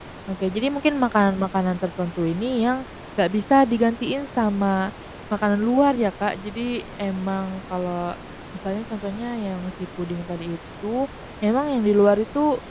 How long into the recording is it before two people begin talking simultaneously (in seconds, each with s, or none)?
none